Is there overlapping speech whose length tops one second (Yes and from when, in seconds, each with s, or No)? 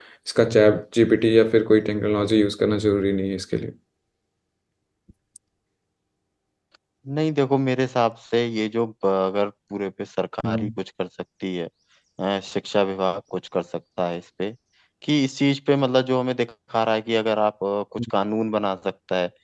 No